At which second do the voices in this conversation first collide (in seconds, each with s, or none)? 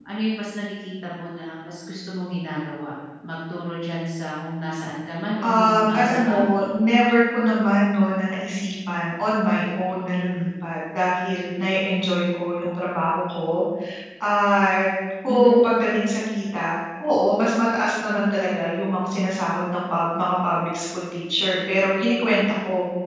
5.4 s